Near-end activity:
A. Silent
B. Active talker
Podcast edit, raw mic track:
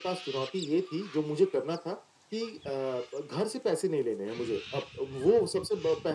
A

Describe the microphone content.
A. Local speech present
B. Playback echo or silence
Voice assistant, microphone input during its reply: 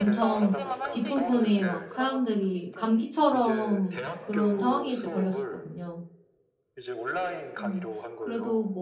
A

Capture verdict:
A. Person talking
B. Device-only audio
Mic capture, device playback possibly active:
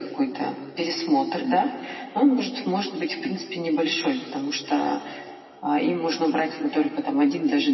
B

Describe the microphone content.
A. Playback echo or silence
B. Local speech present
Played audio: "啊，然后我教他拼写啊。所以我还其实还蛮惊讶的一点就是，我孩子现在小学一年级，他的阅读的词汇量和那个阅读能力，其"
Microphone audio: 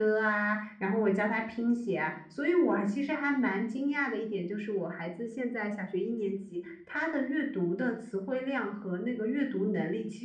A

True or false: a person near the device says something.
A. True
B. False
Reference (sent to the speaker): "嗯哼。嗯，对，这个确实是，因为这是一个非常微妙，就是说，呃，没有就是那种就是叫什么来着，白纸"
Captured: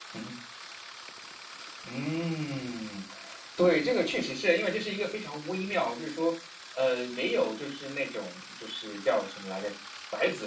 B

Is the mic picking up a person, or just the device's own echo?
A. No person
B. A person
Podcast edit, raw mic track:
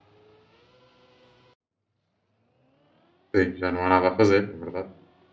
B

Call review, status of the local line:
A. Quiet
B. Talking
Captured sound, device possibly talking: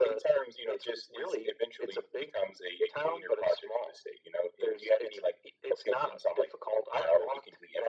A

